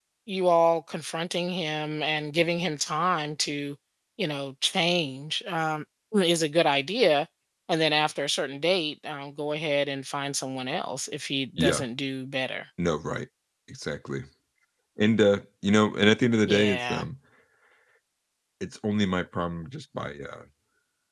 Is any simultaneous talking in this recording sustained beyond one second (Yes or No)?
No